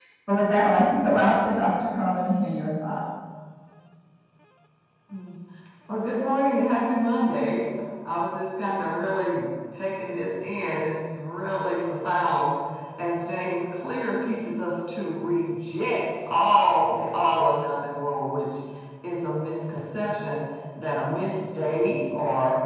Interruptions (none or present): none